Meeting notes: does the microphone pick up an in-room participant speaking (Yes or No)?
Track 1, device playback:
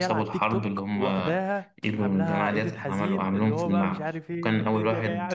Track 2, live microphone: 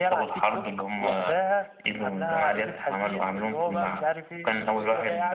No